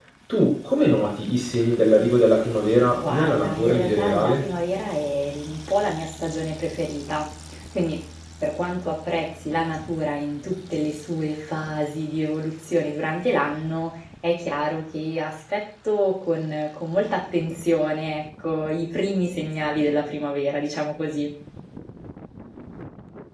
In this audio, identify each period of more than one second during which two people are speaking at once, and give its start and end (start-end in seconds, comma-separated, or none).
3.0-4.5